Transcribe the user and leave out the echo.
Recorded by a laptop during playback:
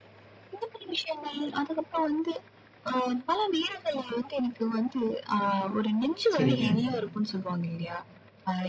சரிங்க.

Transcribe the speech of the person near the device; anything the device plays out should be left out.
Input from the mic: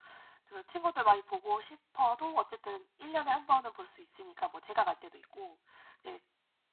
none

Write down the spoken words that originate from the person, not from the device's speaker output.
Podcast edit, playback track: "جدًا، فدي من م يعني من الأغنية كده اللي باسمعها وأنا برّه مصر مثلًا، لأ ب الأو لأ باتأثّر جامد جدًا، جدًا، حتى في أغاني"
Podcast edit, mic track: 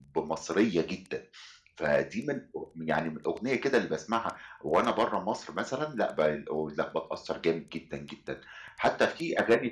none

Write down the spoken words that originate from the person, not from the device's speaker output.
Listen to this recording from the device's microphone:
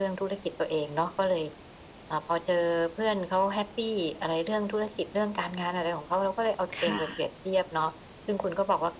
ค่ะ

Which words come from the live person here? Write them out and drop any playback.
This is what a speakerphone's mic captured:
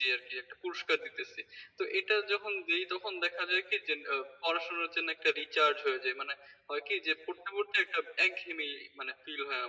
none

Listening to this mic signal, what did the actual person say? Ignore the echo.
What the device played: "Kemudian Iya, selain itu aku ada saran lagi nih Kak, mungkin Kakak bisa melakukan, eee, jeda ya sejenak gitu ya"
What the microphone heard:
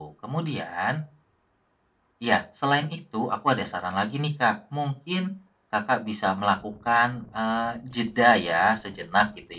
none

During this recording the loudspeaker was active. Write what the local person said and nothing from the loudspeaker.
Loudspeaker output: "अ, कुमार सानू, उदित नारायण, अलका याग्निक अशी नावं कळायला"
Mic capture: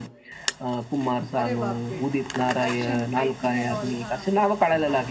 अरे बापरे! ॲक्शन, फायटिंग एंड ऑल. हां.

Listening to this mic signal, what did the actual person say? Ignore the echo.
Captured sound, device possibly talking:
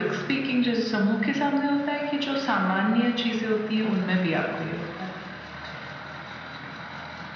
none

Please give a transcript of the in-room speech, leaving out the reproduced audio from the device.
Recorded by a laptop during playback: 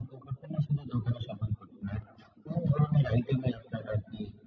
none

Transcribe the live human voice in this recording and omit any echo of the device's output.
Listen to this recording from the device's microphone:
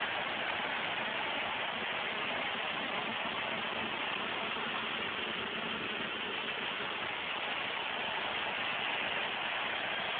none

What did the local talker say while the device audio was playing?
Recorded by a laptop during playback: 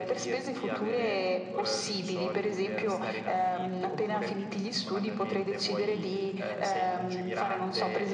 none

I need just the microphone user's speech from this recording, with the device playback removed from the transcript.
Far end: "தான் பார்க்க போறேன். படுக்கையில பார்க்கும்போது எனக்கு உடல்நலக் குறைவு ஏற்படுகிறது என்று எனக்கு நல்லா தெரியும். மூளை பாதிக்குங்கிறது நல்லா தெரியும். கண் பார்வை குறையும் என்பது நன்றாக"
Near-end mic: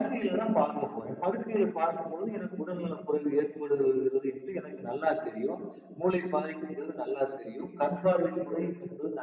none

